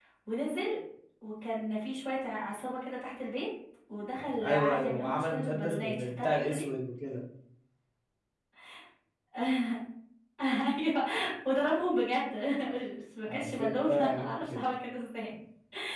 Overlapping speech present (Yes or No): Yes